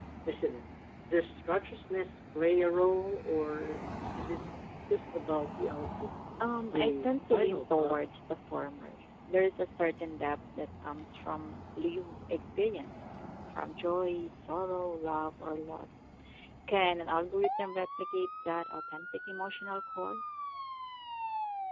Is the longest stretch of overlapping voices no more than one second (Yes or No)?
No